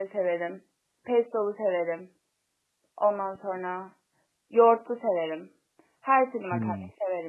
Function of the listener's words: listening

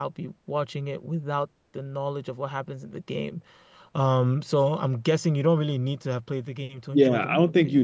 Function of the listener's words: taking over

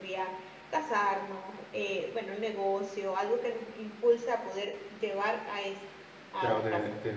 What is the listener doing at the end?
taking over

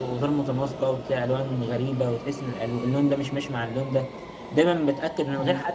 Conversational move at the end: listening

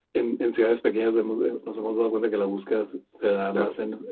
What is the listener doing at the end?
listening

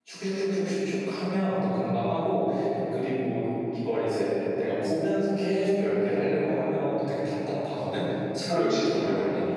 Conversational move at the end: listening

